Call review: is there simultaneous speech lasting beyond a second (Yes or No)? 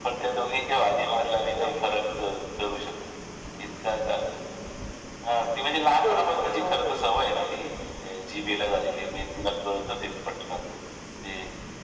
Yes